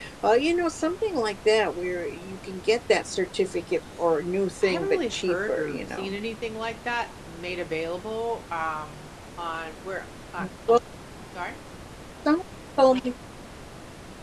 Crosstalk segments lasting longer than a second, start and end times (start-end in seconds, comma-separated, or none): 4.6-6.1